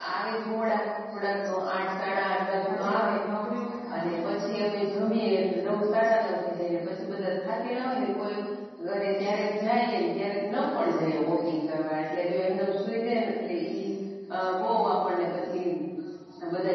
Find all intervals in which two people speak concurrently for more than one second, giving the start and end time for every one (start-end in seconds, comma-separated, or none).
none